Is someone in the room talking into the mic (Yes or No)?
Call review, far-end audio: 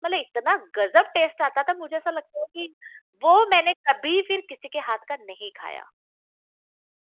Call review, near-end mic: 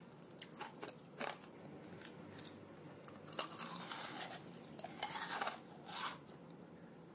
No